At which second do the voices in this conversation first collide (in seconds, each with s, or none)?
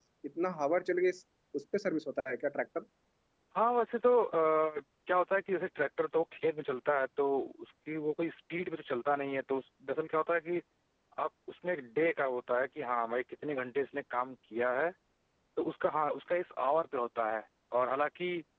none